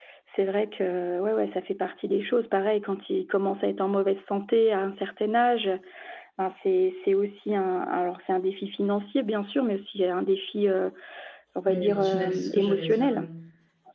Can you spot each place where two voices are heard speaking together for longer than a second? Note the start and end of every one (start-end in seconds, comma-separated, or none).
11.6-13.3